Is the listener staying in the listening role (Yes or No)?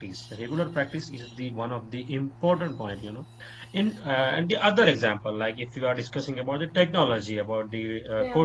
Yes